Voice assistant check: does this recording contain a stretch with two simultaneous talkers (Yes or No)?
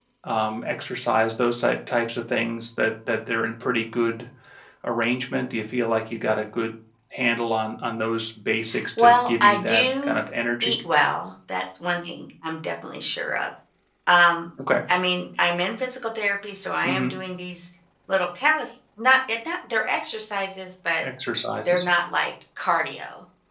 Yes